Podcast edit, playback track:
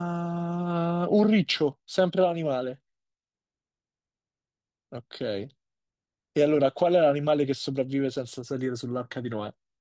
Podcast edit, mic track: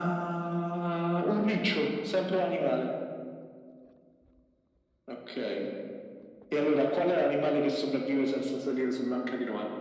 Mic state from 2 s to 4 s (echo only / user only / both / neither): echo only